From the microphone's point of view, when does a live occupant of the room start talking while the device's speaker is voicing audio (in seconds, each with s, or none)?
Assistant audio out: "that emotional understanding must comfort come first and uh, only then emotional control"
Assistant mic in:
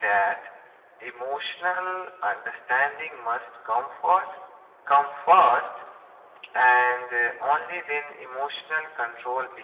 none